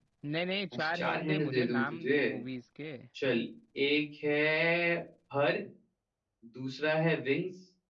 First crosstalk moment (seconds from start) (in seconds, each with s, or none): 0.7 s